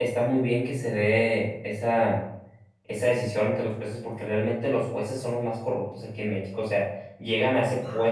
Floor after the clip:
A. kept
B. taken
A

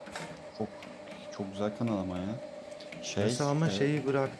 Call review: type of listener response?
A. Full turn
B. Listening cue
A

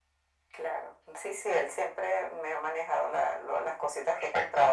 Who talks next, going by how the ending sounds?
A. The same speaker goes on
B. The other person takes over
A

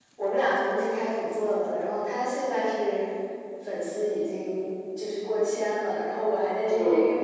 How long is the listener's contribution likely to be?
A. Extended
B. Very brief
B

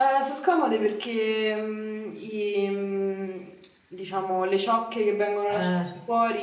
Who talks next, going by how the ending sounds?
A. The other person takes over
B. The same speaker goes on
B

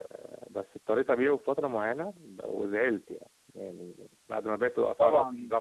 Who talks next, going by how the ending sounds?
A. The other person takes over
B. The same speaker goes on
B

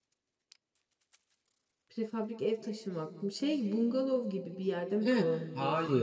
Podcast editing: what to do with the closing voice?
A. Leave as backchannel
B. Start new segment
B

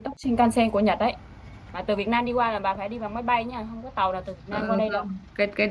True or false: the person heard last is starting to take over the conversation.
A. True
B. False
A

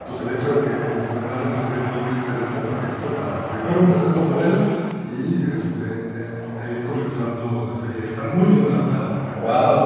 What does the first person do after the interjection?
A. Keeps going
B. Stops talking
B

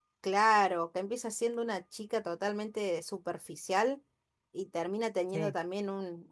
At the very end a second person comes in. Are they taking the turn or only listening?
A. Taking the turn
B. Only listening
B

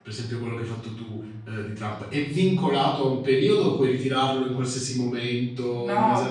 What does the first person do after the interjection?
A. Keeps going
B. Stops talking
B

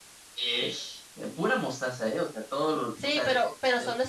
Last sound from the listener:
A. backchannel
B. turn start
B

